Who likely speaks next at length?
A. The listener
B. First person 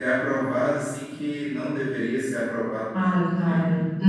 A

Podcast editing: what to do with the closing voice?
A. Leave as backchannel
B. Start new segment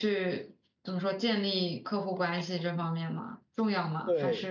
B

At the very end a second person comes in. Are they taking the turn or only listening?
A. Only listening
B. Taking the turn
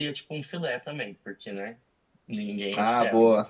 B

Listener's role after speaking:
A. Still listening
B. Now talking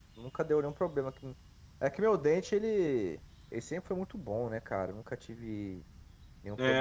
B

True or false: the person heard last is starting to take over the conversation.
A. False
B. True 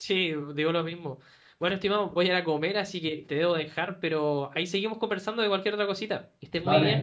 B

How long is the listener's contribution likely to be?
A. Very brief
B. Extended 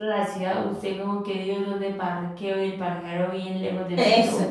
B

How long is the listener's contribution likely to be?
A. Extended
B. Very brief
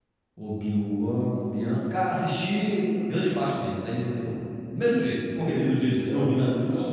A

